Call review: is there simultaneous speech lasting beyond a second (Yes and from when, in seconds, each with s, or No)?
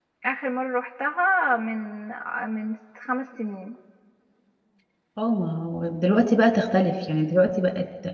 No